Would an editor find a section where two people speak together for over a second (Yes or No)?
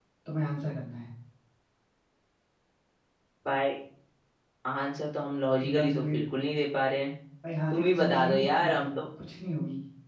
Yes